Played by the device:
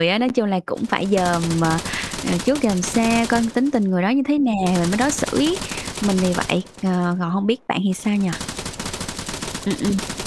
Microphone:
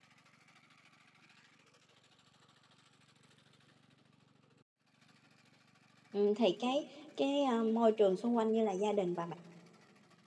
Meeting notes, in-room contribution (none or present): present